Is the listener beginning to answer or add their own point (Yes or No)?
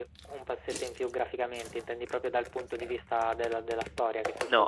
Yes